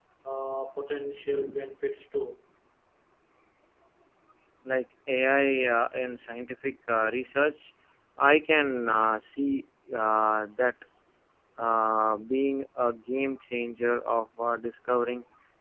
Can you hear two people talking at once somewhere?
No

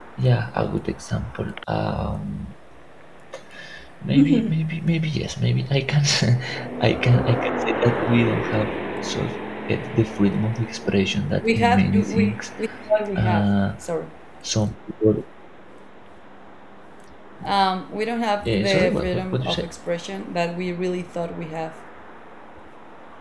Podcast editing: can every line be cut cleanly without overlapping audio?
No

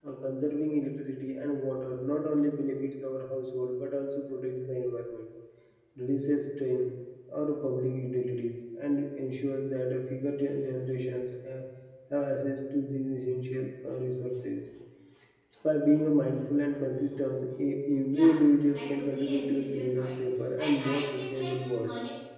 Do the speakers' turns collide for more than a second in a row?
Yes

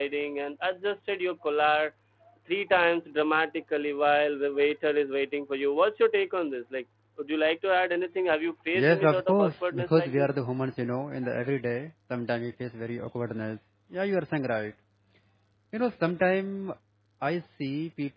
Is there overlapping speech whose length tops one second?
Yes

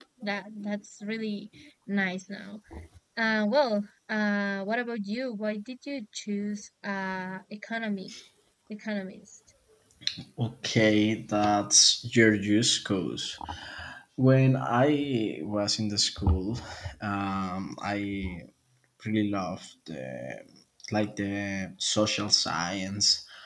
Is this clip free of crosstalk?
Yes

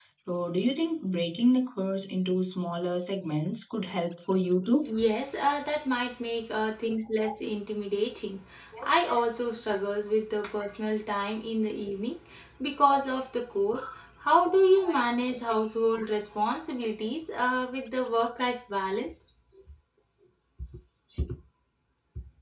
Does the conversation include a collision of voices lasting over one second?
No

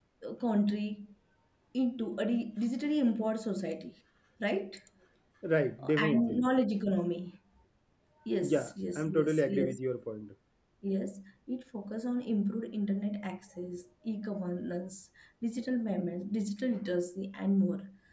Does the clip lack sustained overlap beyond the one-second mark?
No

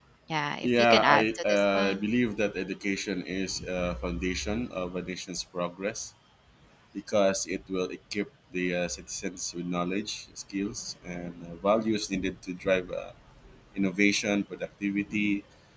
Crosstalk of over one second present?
Yes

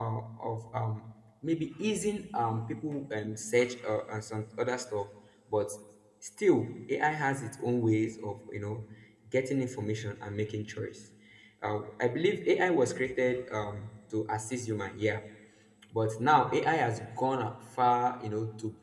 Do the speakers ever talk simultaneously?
No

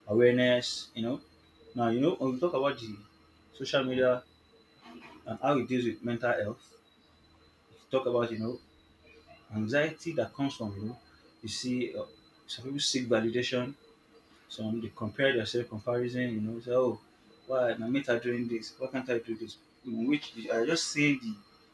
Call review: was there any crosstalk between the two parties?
No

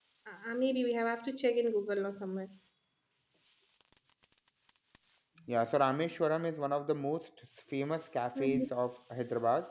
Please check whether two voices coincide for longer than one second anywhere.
No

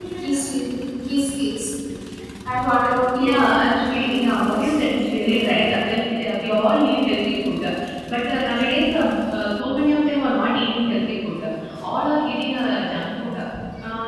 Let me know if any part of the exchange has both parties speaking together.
Yes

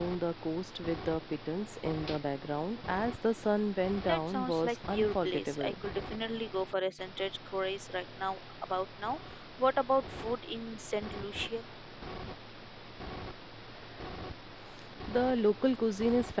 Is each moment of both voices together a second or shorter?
No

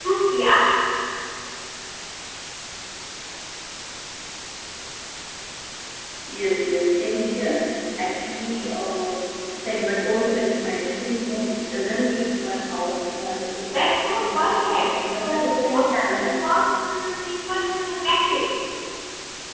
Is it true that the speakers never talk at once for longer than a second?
No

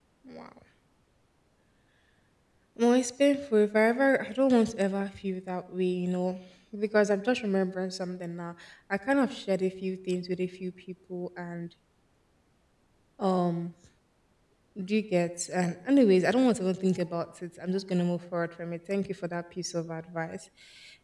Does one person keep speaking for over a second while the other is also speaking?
No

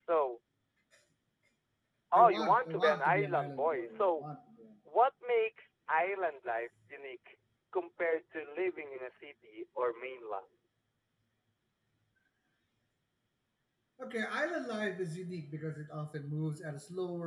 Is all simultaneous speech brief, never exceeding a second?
No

